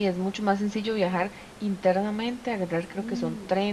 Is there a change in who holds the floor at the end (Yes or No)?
No